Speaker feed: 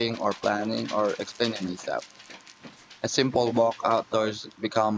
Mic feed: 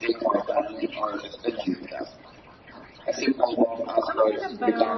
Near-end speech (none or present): present